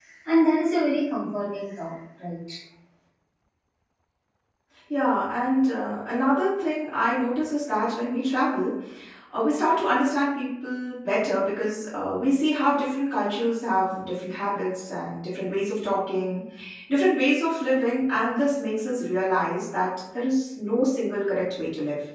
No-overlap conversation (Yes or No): Yes